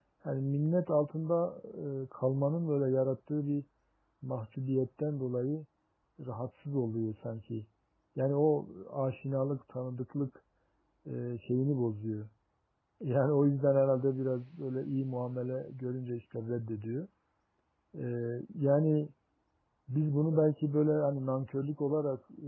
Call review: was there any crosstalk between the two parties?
No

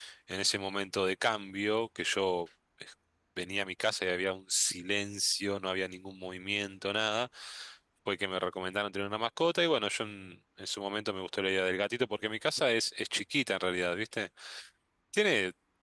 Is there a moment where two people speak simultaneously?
No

